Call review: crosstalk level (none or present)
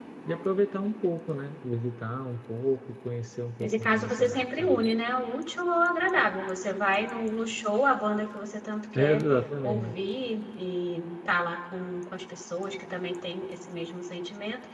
present